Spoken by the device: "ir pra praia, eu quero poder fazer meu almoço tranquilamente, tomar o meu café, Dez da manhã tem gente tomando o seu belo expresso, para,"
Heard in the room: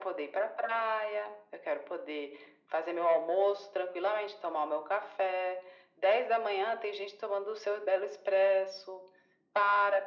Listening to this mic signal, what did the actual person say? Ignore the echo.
none

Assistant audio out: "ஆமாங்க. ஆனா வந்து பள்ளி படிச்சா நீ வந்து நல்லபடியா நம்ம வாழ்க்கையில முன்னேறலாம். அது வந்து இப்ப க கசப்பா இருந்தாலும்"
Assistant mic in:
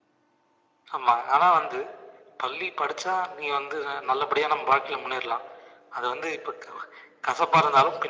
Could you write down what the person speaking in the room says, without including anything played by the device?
none

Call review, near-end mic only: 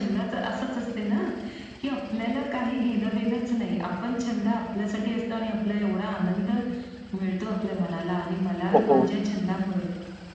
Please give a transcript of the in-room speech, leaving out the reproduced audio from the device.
हो, हो.

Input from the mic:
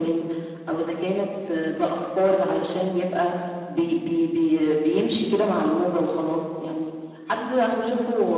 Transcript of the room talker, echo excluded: none

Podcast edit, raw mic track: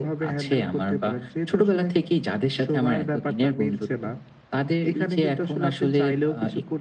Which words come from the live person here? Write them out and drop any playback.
none

